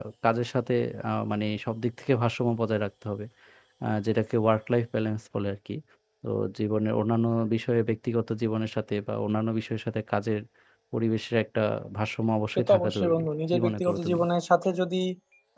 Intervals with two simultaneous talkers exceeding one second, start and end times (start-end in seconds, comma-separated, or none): 12.5-14.2